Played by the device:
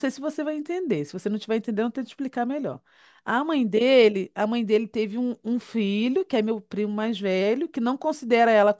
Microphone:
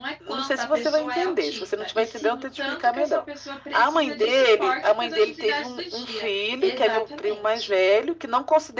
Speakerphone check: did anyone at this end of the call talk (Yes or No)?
Yes